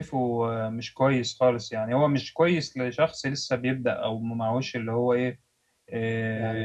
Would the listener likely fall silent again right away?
Yes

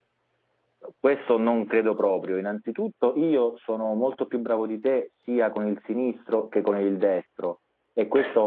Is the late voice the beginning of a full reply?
No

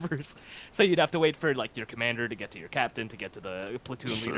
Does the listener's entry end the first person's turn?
Yes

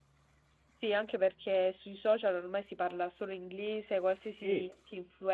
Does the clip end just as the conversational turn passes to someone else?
No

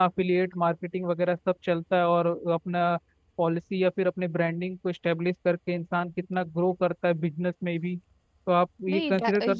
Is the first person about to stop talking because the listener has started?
Yes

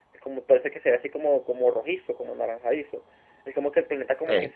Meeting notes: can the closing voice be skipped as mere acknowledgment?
Yes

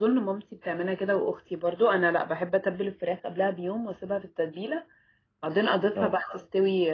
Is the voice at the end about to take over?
No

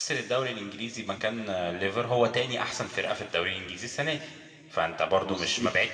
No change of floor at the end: Yes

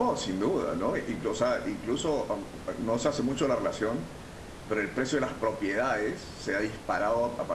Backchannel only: Yes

